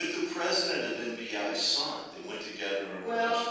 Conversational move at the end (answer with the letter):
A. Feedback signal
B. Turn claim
B